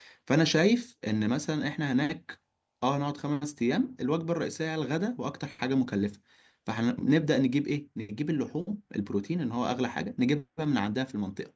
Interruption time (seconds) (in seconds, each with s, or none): none